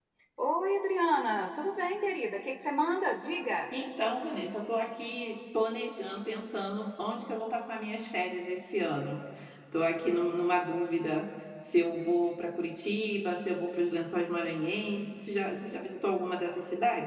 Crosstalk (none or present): none